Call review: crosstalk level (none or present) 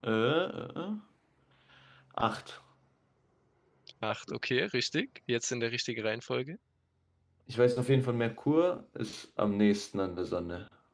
none